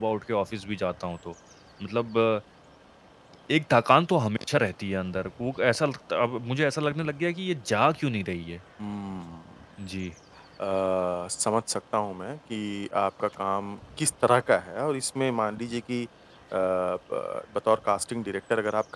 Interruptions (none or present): none